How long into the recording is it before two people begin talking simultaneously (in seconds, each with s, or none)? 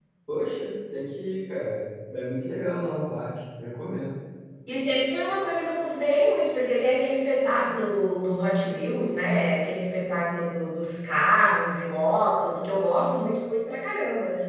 none